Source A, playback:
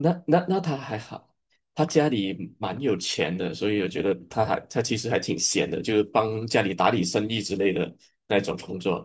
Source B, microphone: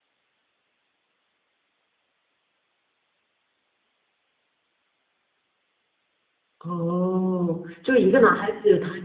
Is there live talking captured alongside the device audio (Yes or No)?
Yes